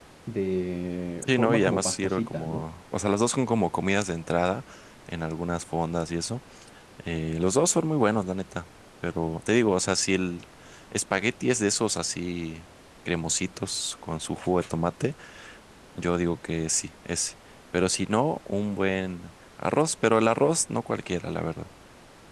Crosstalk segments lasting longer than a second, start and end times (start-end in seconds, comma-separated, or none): 1.3-2.7